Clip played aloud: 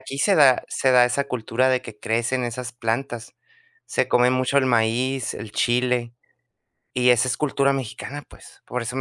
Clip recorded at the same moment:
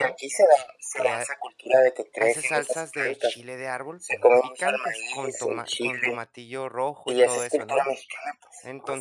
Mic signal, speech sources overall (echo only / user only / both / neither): both